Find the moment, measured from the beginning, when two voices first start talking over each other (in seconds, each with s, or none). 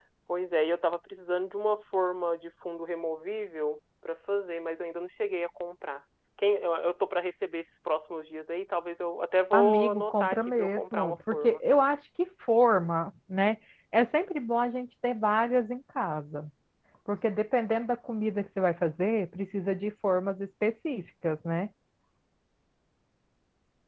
9.5 s